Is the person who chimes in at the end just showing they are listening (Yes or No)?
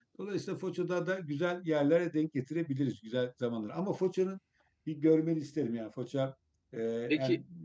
Yes